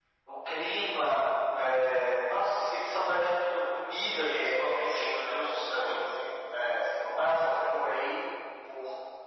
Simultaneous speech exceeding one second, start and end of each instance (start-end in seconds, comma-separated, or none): 4.1-5.9